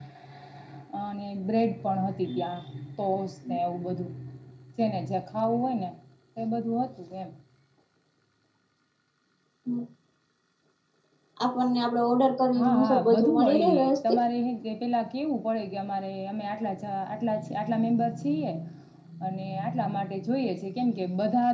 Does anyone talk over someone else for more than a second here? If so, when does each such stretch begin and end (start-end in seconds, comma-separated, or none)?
12.6-14.2